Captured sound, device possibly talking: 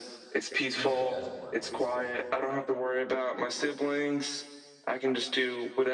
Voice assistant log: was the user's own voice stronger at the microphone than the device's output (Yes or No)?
No